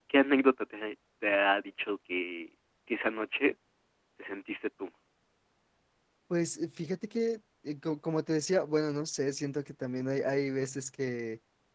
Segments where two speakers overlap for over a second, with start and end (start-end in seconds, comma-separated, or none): none